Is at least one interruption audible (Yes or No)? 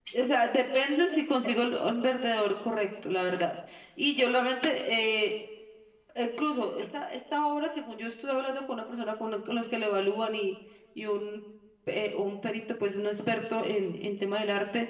No